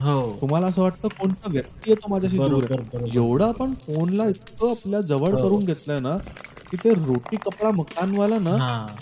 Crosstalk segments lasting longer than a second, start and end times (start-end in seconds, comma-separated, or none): none